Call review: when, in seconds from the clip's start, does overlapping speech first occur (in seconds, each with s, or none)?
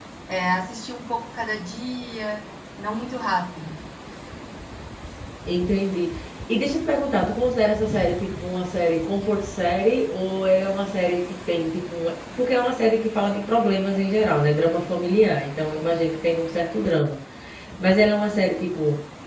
none